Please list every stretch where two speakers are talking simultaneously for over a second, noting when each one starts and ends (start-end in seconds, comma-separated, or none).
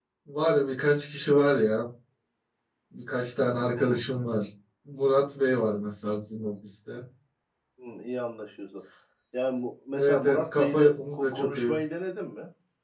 9.9-11.7